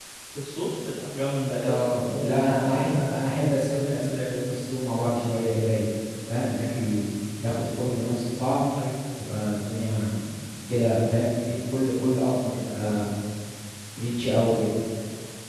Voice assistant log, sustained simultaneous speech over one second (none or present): present